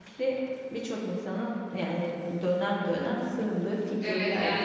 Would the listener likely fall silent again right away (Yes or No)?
No